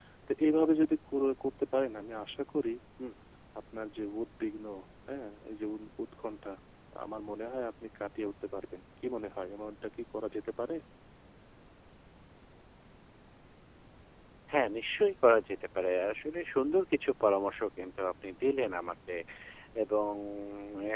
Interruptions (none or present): none